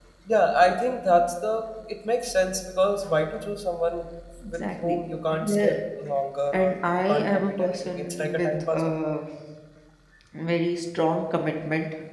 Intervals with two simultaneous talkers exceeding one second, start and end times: 4.5-5.7, 6.5-8.9

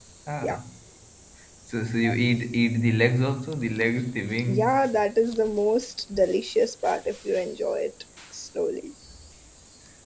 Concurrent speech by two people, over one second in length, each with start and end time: none

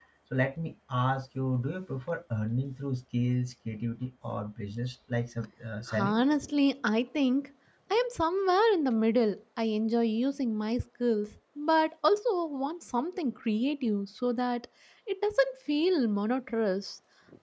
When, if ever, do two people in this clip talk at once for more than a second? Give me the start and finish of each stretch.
none

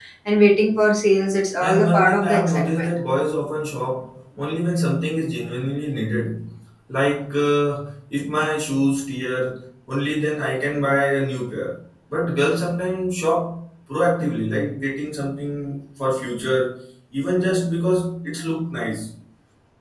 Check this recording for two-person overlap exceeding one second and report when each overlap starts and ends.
1.6-2.9

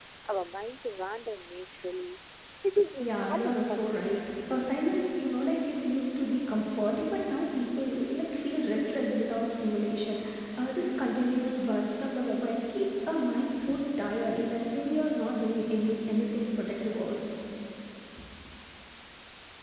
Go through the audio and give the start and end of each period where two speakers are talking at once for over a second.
3.0-4.8

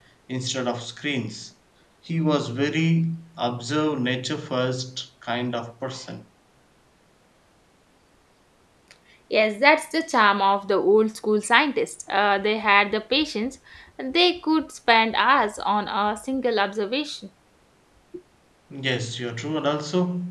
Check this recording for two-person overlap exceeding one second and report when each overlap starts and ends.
none

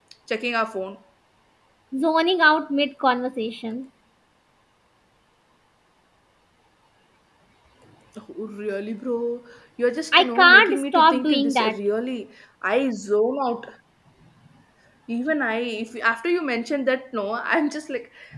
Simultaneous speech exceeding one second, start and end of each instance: 10.1-11.8

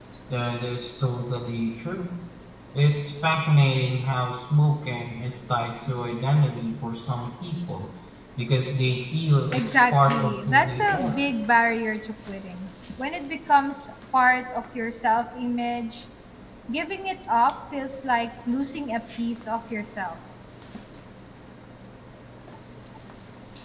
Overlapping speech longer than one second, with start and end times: 9.5-11.2

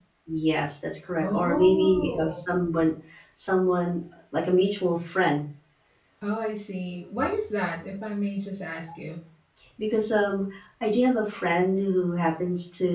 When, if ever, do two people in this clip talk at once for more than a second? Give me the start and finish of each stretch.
1.2-2.4

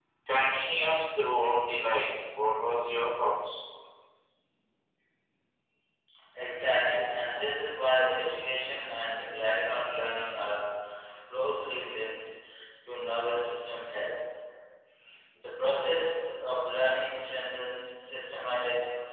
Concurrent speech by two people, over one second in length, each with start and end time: none

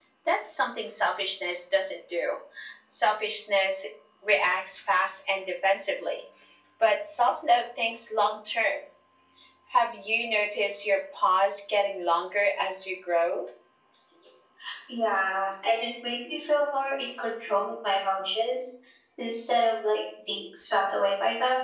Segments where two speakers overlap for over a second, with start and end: none

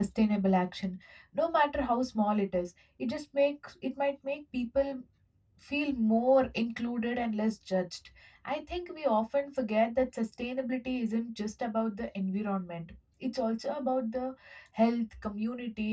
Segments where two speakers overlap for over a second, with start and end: none

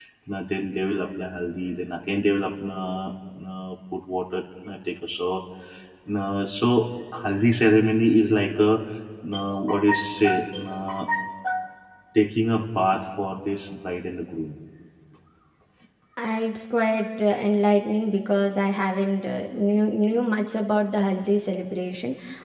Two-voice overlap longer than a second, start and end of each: none

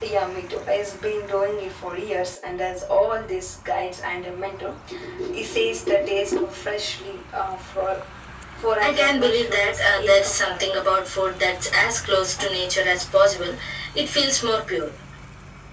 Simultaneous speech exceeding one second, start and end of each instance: 8.8-10.8

